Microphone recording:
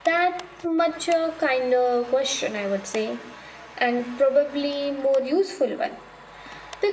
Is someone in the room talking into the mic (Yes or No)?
Yes